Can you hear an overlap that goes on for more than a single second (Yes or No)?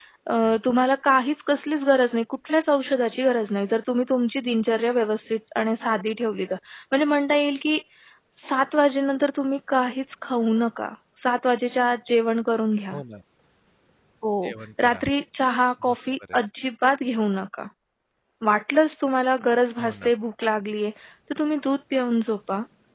No